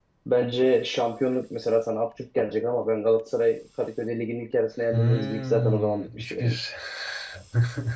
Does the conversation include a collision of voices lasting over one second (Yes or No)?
Yes